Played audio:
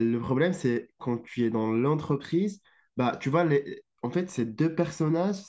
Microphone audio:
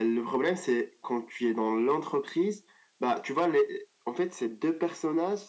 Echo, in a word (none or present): present